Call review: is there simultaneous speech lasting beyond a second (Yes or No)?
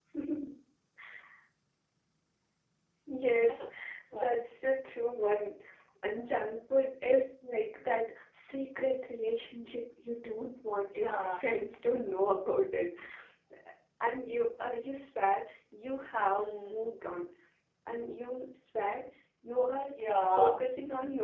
No